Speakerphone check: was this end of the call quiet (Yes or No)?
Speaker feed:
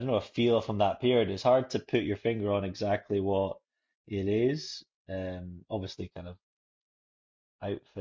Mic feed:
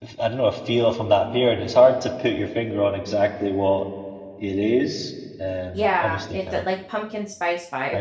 No